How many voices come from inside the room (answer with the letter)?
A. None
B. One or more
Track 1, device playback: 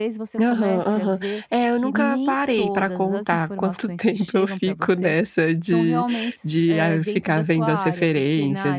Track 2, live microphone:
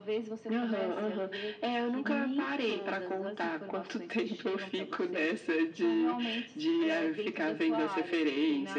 A